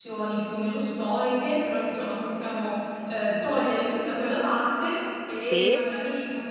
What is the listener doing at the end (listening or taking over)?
listening